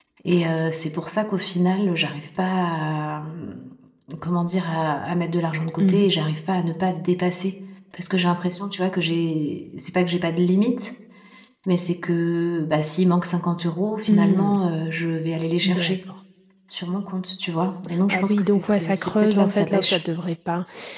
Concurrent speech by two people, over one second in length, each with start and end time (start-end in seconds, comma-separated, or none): 18.1-20.0